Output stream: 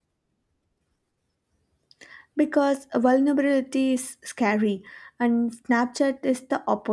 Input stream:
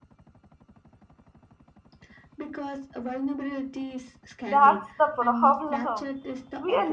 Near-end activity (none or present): present